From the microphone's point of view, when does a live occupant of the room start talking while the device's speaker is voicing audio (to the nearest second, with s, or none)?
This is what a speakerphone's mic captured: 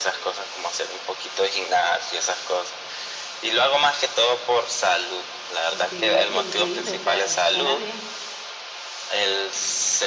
6 s